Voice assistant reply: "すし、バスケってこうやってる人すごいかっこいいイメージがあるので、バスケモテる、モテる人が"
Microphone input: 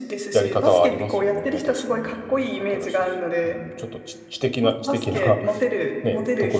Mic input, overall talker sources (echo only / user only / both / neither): both